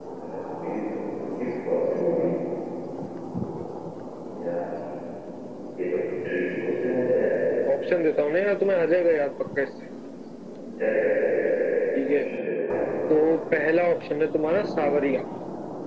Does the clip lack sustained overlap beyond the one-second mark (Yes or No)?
Yes